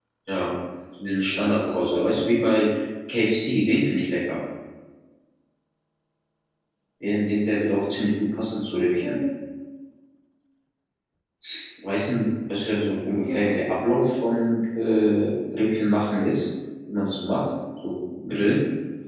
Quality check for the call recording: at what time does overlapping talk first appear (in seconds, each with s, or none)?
1.3 s